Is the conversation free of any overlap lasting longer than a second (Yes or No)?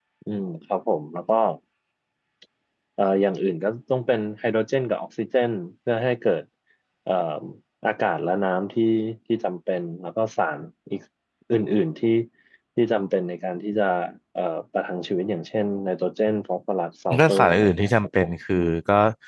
No